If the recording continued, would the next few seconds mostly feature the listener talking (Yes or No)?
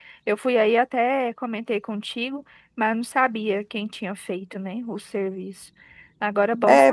Yes